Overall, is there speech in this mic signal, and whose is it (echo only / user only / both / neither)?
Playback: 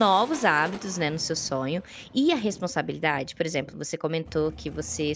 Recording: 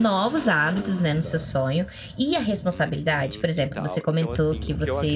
both